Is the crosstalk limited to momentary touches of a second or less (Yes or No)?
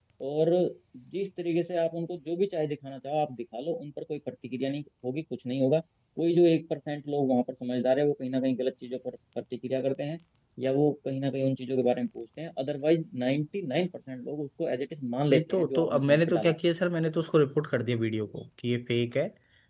No